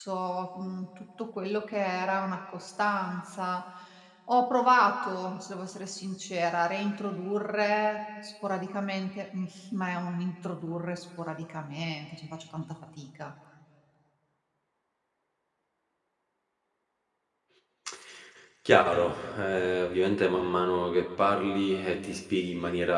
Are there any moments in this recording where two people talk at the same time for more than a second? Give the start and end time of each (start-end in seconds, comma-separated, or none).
none